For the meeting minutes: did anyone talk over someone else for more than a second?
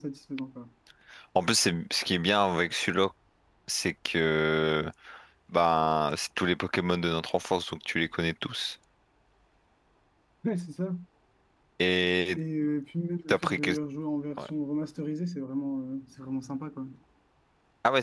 No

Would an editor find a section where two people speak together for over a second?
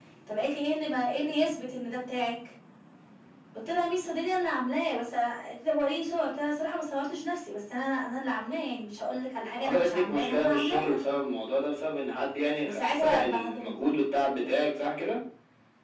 Yes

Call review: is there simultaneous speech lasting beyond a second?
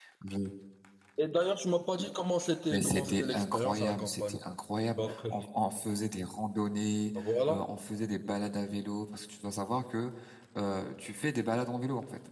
Yes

